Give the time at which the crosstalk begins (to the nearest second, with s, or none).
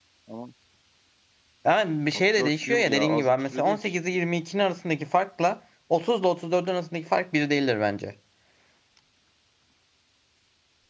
2 s